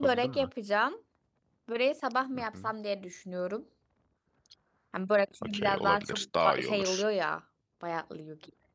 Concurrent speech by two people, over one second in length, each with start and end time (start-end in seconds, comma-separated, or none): 5.4-7.0